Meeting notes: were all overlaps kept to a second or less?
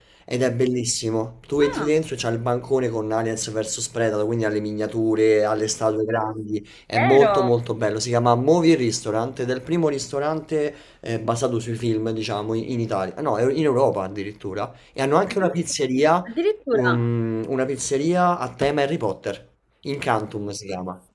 Yes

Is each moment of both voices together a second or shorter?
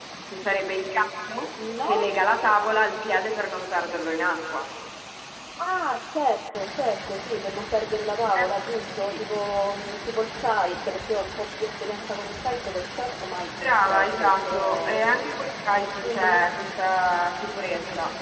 No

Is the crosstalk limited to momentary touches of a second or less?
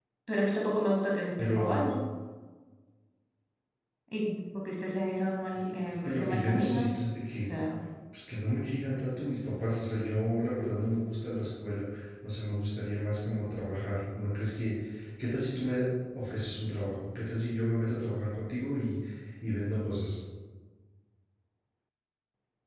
No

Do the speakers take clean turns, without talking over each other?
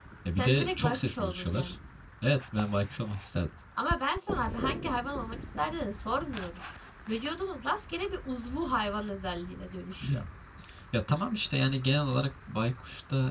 No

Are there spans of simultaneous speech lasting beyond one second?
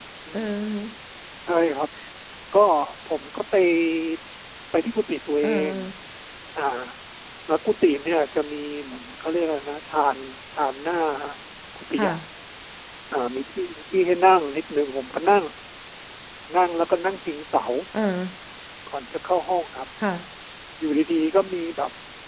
No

